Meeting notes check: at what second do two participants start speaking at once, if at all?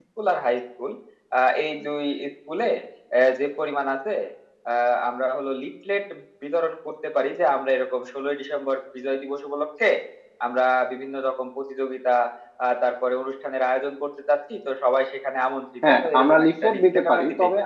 15.8 s

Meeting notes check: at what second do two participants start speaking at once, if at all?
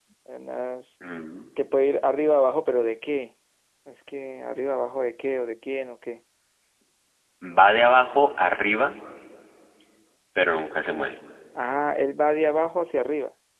none

